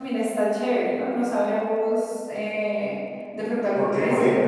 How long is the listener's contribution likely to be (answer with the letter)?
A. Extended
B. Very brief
A